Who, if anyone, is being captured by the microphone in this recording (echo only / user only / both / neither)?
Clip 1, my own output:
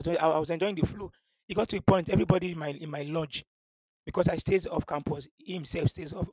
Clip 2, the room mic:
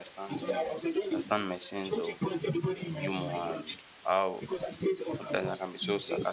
both